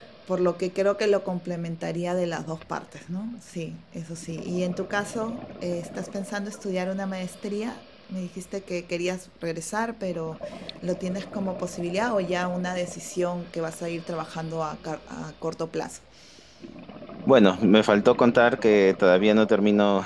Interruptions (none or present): none